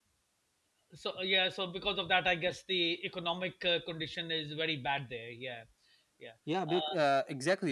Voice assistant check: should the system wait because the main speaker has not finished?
No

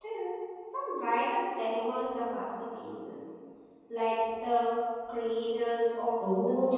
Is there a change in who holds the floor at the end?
Yes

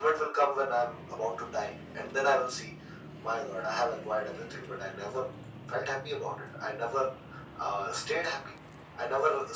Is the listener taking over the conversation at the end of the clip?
No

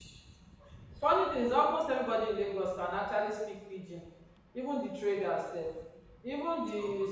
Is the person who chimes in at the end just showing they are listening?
Yes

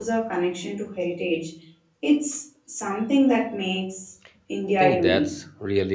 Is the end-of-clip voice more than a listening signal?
Yes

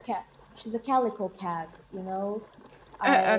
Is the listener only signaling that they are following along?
Yes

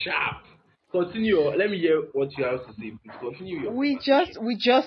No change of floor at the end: No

